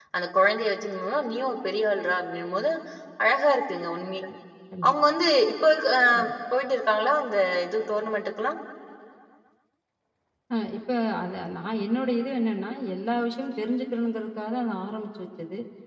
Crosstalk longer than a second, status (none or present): none